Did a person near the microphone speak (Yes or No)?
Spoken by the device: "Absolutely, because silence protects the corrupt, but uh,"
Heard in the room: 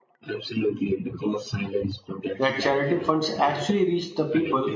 Yes